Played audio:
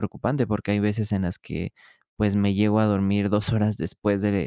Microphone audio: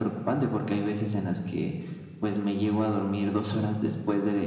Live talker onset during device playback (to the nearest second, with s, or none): none